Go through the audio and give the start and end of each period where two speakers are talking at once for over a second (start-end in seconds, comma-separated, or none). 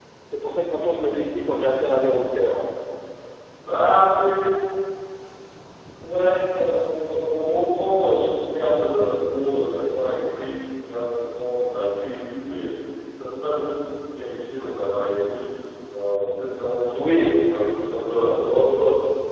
none